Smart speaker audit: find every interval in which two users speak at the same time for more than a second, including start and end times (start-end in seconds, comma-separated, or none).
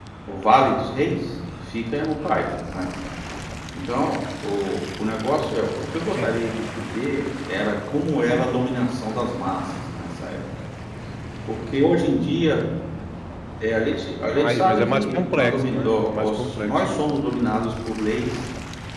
14.4-17.0